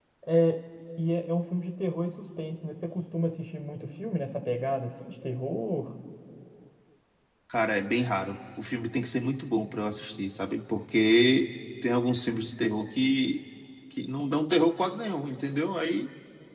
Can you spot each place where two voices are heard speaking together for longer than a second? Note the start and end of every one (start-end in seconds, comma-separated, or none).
none